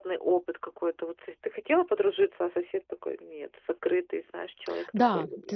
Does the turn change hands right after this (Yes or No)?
Yes